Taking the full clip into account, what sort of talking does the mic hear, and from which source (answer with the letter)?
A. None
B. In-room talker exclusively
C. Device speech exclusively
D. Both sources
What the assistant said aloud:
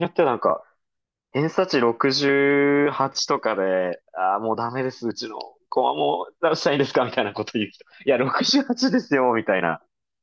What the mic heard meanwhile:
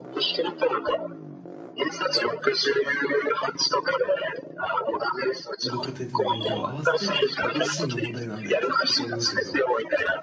D